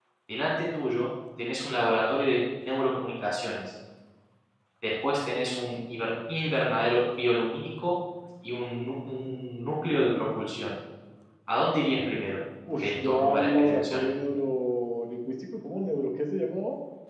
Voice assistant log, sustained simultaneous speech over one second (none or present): present